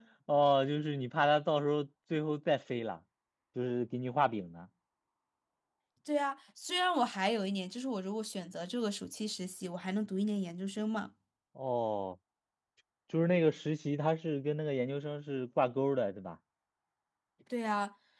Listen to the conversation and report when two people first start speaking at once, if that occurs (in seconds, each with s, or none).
none